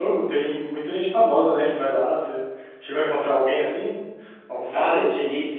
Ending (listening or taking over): taking over